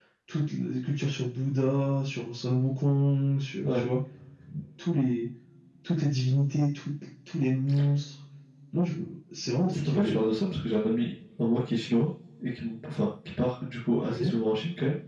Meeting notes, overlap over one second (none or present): none